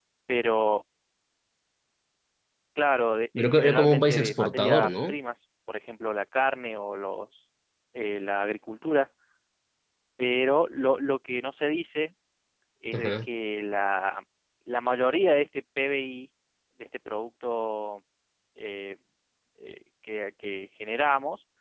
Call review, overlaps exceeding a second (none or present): present